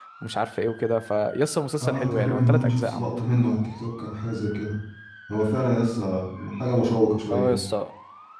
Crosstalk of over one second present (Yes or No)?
Yes